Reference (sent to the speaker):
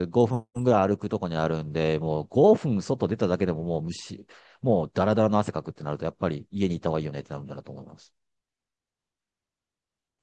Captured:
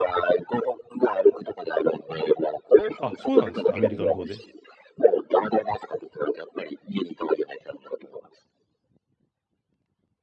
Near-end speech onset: 3.0 s

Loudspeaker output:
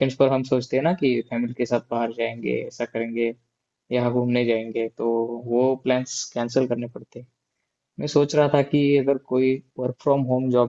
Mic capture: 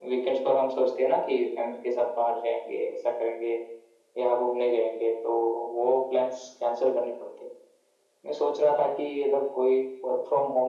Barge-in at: none

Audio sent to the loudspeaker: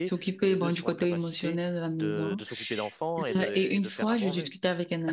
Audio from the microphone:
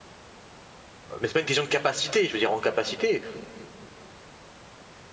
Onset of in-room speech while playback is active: 1.2 s

